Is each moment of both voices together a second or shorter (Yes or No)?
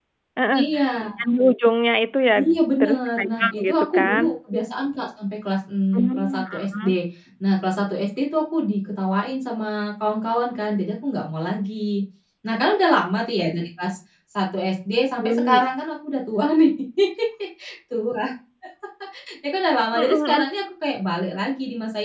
No